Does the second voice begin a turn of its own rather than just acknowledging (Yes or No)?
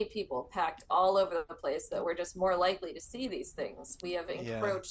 No